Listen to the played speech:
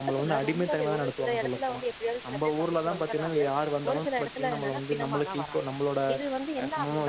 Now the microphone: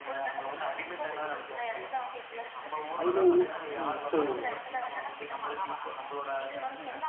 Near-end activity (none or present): present